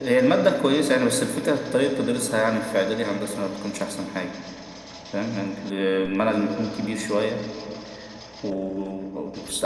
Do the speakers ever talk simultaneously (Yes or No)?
No